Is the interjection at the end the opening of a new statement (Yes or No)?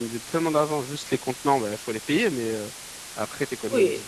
Yes